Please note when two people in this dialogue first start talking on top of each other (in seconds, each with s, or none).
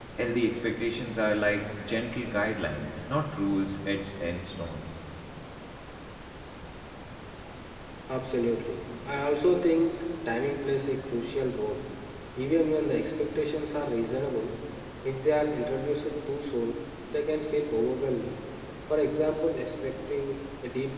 none